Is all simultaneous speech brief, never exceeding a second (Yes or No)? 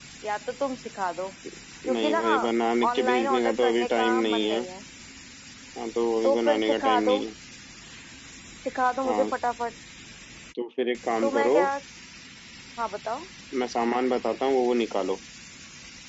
No